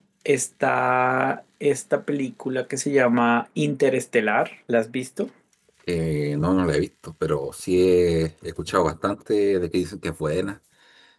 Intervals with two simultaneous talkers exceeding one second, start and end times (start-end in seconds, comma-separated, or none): none